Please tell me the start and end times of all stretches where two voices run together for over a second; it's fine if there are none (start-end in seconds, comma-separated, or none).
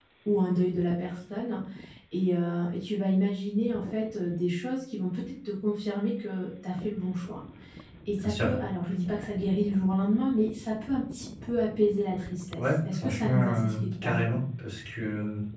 12.6-14.3